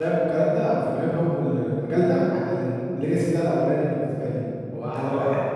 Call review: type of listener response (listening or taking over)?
taking over